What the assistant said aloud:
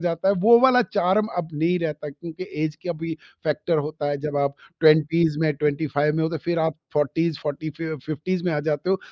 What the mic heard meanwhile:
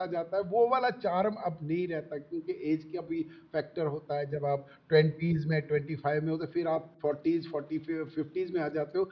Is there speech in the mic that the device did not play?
No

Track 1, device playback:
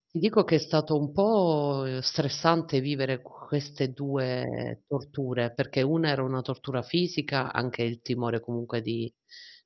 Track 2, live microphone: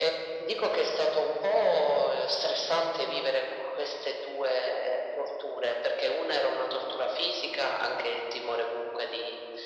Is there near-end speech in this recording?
No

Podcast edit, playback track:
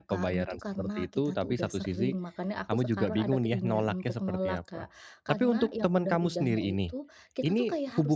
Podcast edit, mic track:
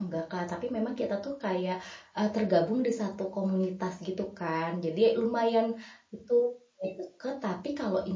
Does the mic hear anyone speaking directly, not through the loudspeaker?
Yes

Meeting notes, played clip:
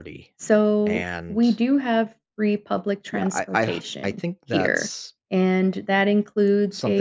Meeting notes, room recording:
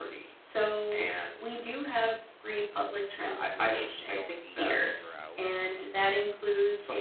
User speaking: Yes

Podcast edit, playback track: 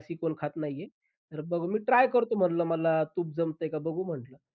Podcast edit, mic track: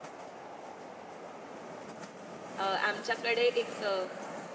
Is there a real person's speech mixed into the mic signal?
Yes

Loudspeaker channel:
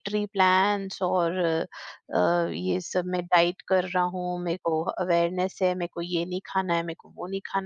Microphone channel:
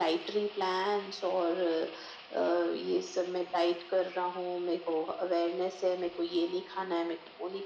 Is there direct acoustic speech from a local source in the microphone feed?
No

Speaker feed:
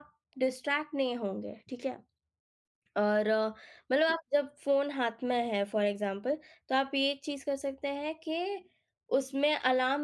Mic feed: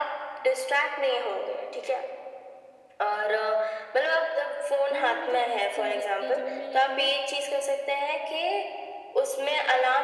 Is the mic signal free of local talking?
No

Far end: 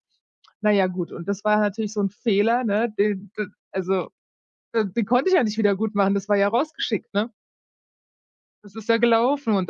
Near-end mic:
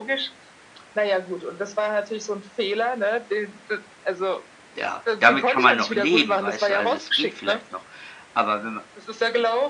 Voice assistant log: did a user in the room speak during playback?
Yes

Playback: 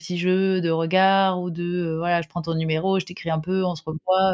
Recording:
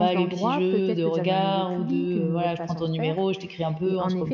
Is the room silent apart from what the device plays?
No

